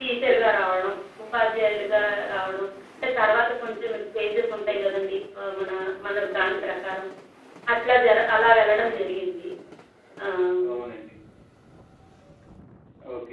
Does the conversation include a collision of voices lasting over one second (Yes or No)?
No